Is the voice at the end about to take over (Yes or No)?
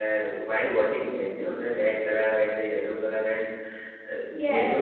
Yes